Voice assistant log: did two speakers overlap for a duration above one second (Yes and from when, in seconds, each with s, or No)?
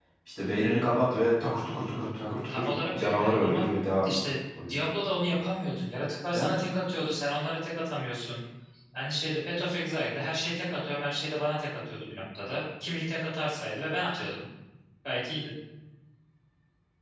Yes, from 2.5 s